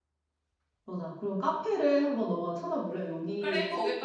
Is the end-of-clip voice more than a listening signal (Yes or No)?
Yes